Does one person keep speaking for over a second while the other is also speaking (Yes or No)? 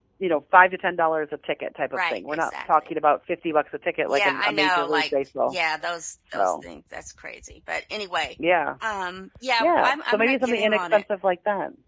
Yes